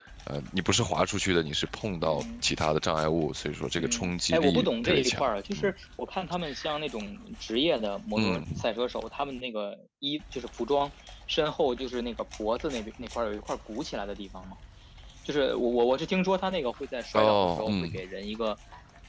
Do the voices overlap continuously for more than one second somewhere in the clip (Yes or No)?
Yes